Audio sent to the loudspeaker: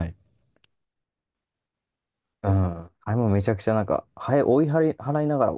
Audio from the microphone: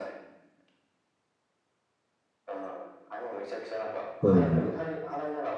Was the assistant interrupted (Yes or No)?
Yes